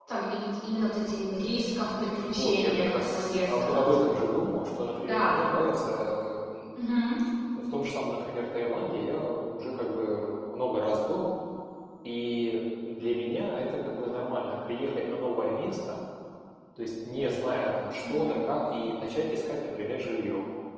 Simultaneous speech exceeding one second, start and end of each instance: 1.8-3.8

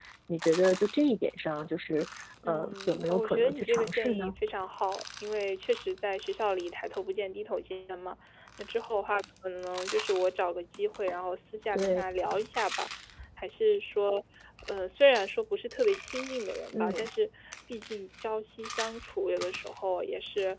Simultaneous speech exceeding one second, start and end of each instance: 2.4-4.3

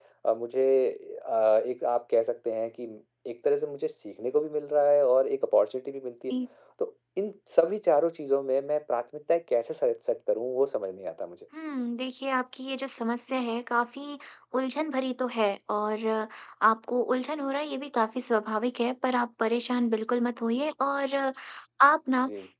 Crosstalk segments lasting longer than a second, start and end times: none

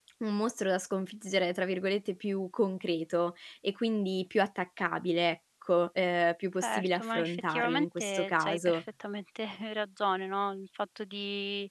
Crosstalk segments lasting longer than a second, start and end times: 6.6-8.8

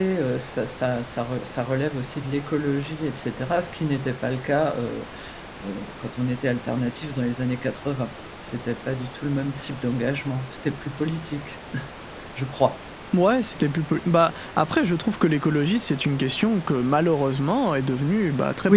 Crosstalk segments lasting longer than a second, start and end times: none

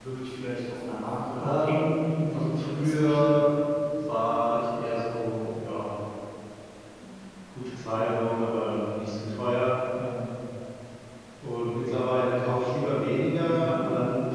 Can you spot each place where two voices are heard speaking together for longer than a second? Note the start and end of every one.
1.4-3.5

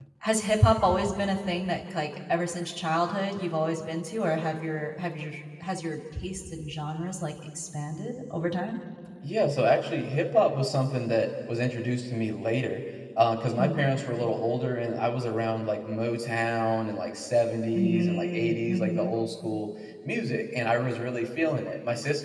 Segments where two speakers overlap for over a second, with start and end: 17.8-19.1

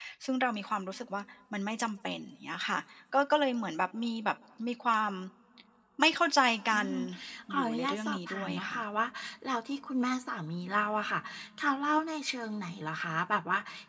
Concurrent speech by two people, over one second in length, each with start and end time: 7.5-8.8

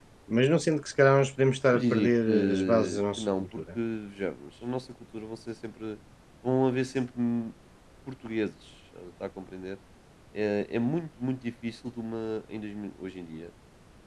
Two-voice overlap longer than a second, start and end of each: 1.7-3.8

